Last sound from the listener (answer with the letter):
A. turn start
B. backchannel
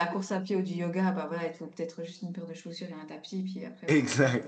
A